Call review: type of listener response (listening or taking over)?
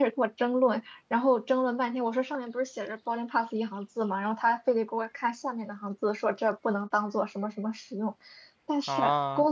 listening